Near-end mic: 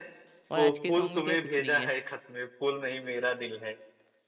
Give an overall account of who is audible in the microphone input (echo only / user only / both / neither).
both